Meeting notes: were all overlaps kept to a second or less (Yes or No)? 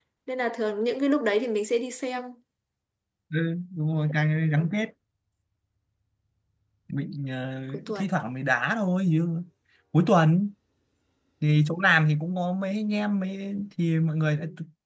Yes